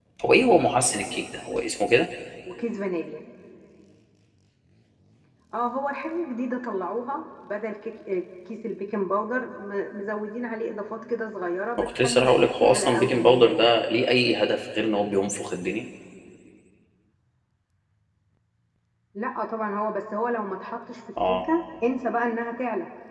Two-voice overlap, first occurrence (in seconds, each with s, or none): 11.8 s